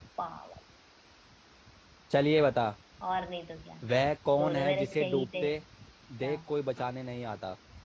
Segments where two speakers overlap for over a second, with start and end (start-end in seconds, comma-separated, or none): 4.4-5.6